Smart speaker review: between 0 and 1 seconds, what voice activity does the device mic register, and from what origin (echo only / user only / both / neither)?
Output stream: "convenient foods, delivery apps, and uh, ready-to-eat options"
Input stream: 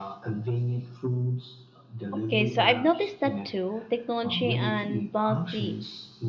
echo only